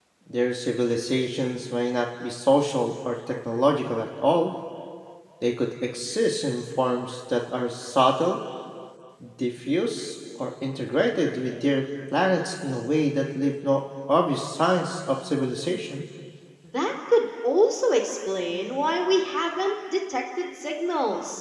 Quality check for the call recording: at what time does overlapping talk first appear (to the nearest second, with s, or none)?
none